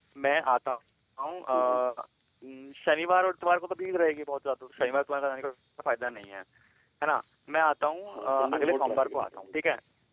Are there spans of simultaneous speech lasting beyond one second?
Yes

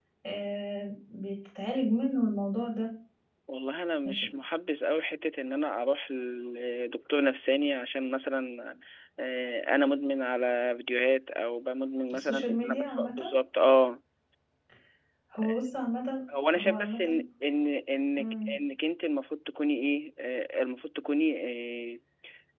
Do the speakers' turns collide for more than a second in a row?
Yes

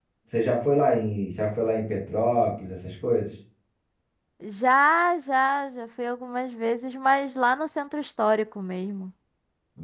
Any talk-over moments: No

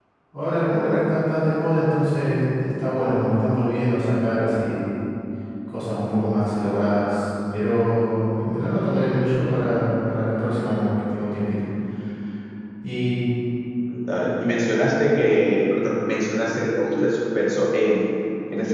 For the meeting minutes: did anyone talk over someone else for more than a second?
No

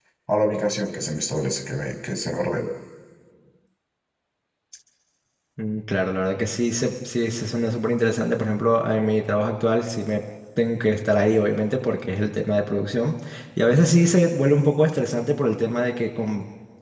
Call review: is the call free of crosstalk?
Yes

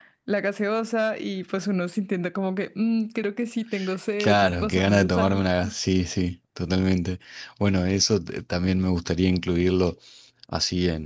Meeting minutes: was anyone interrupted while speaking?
Yes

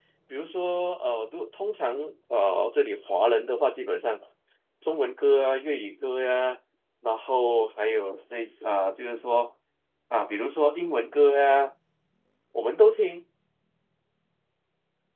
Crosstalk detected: No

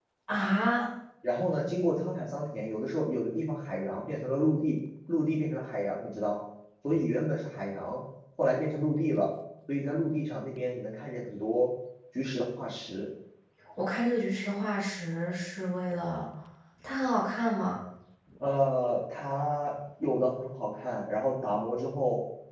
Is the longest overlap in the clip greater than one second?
No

